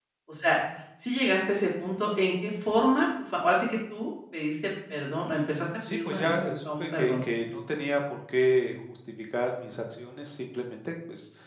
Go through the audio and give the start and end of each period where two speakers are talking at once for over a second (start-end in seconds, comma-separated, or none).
5.9-7.2